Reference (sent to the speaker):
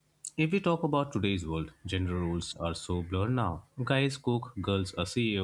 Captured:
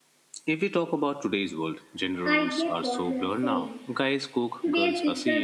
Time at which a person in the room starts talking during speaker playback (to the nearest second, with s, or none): 2 s